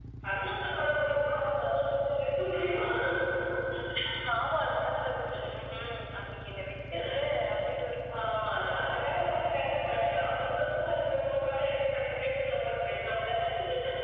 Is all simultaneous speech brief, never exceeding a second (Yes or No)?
Yes